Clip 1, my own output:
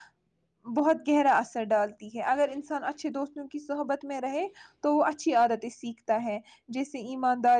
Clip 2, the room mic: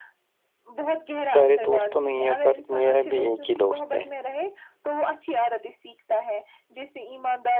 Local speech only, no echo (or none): سارے دوست تو نہیں ہے پر میرا بھی ایک ہی دوست ہے